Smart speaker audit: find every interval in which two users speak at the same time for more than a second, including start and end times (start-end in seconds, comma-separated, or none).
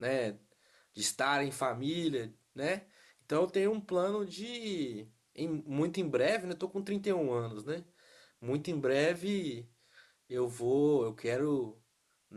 none